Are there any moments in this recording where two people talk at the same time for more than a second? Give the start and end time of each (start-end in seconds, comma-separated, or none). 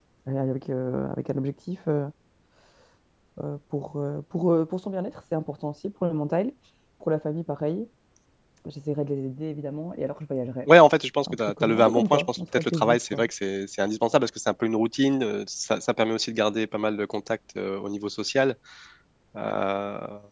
11.3-13.2